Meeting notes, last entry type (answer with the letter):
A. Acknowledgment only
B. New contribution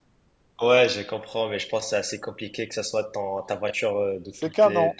B